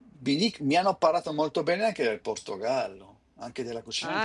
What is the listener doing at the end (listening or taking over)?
taking over